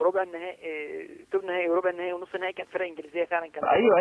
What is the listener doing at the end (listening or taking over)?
taking over